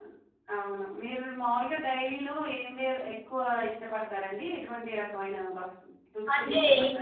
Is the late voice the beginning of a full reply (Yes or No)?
Yes